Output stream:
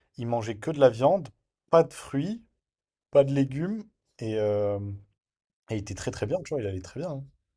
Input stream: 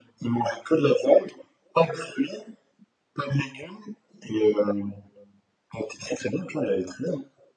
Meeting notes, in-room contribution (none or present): none